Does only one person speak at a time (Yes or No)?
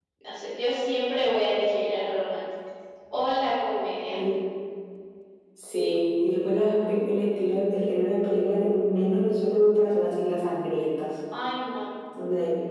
Yes